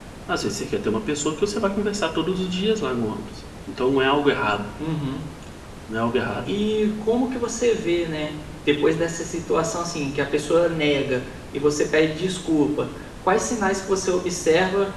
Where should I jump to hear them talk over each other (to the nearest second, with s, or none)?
none